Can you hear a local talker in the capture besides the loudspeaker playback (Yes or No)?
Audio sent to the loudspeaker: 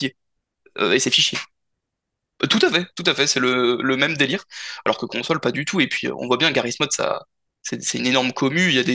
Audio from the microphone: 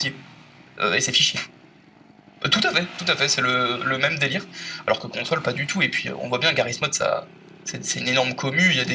No